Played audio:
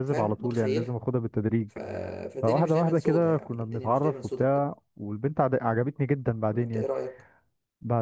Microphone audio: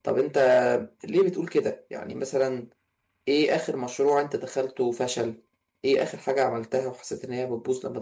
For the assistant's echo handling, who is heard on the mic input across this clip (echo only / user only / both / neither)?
user only